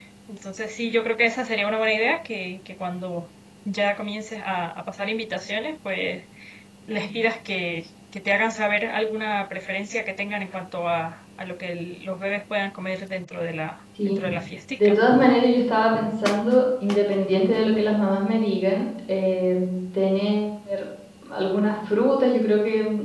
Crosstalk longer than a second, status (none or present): none